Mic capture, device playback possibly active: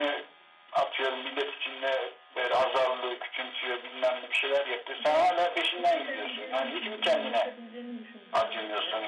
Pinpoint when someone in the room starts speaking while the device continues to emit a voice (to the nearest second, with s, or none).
5 s